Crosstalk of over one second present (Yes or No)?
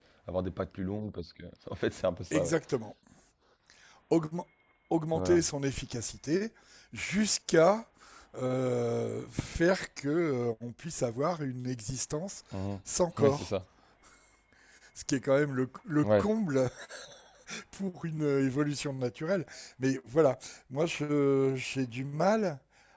No